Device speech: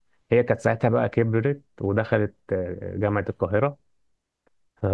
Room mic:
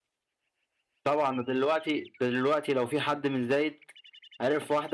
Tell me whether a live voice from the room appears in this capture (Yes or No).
Yes